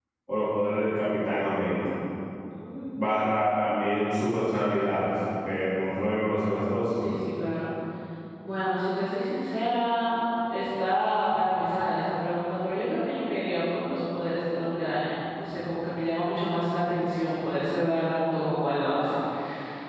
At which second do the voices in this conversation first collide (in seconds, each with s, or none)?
none